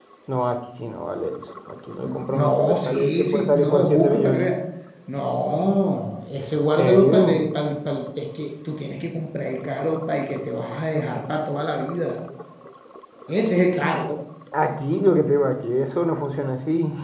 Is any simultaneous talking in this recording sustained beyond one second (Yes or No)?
Yes